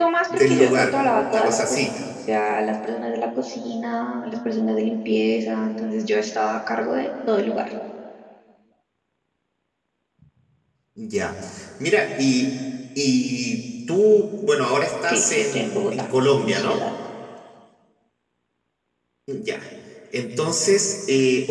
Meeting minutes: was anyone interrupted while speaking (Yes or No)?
Yes